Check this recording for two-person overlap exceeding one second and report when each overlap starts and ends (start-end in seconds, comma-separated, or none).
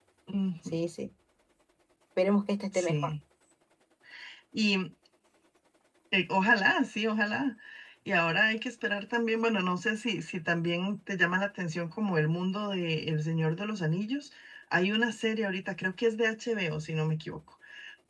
none